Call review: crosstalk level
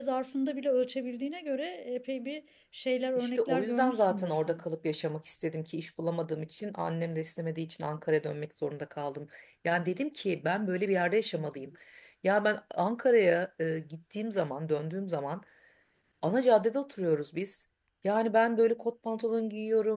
present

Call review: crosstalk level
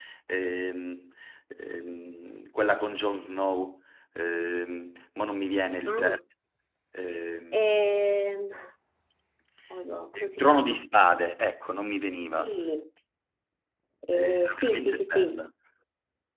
present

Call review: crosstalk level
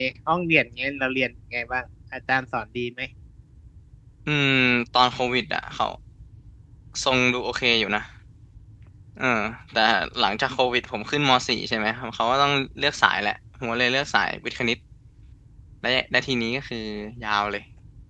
none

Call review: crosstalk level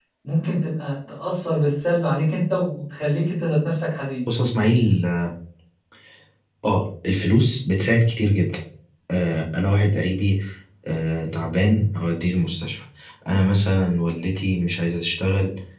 none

